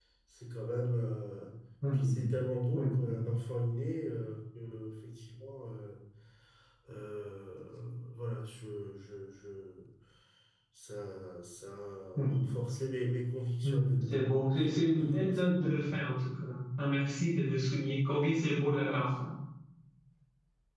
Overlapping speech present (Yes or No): Yes